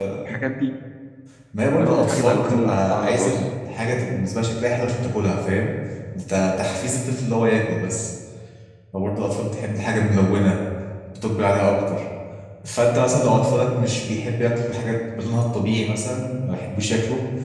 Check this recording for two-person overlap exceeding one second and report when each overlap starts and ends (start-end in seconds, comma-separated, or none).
1.8-3.3